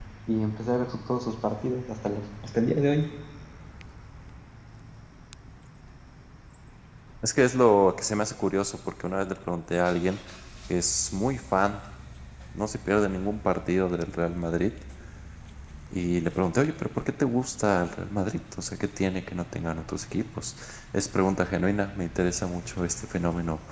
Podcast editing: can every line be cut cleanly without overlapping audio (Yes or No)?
Yes